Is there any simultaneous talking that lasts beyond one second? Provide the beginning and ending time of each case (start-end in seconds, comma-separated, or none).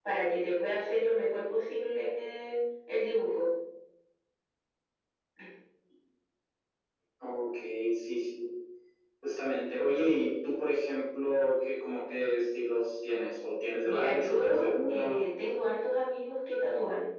13.8-15.3